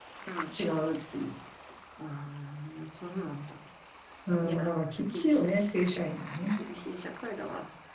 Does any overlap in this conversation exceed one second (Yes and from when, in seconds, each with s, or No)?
Yes, from 4.4 s